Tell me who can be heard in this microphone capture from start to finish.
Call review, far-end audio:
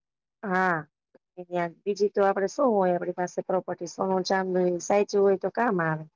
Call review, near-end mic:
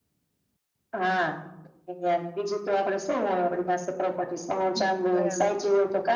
both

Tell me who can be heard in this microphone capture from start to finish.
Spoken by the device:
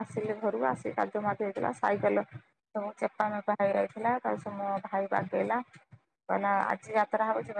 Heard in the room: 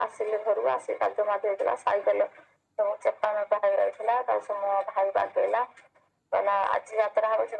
echo only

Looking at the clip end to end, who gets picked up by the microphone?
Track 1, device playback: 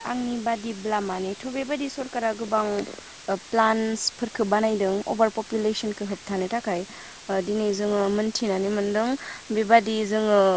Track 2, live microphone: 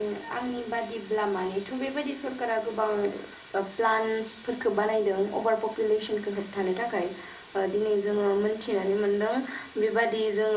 echo only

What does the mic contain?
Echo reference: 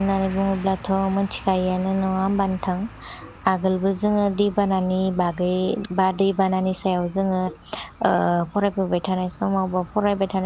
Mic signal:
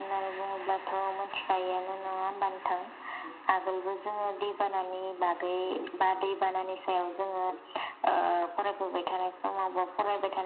echo only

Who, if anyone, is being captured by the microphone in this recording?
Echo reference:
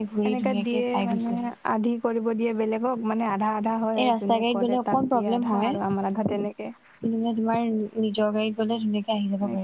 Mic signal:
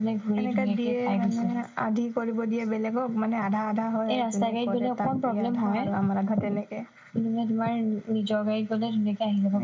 echo only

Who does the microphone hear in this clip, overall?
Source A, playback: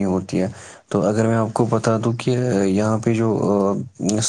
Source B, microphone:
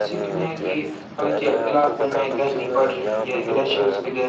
both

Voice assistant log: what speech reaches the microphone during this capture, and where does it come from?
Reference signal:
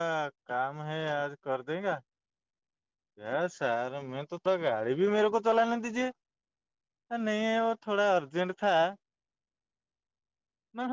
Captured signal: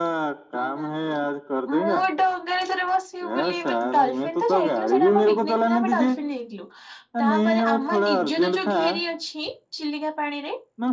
both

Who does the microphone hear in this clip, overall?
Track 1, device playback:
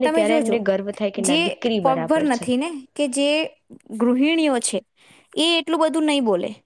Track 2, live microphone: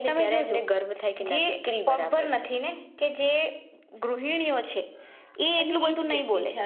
both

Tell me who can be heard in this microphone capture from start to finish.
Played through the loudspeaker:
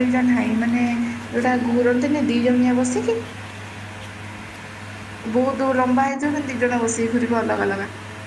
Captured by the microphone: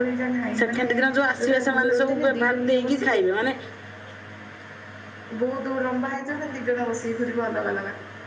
both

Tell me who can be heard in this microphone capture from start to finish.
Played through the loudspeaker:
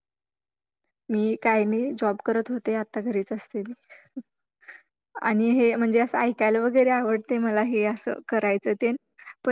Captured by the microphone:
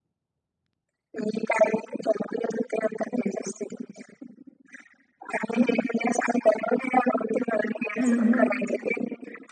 both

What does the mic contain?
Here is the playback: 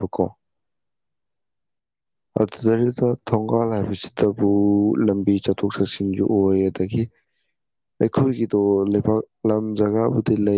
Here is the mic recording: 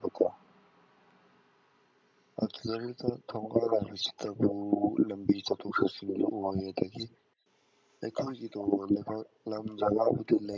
echo only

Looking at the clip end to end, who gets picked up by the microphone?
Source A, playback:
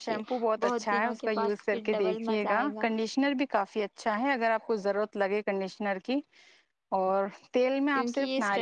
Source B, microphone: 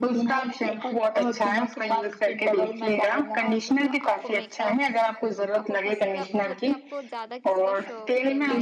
both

